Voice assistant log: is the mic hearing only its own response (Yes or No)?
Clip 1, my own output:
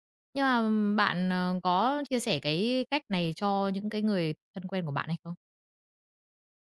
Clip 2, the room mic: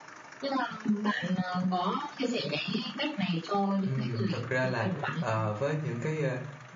No